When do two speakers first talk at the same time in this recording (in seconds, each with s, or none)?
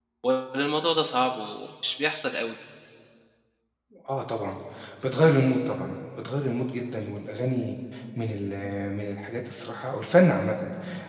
none